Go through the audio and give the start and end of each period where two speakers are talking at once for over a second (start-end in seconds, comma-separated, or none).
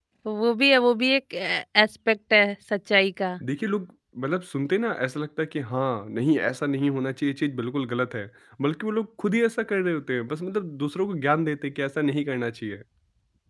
none